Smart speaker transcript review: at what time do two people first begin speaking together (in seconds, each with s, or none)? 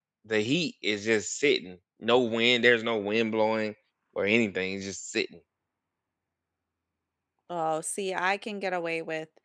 none